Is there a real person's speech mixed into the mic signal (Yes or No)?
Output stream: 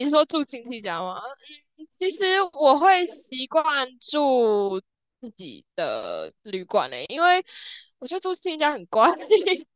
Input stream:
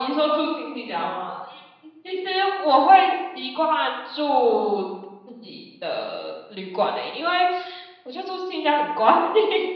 No